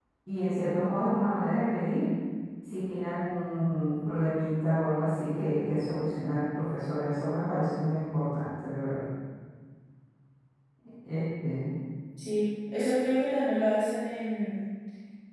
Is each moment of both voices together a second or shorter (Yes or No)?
Yes